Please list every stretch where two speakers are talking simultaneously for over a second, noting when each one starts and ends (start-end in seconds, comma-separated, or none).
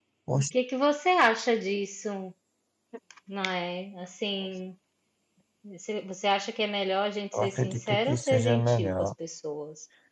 7.3-9.1